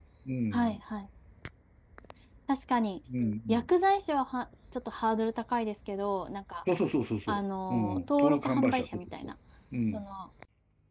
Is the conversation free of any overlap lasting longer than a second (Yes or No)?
No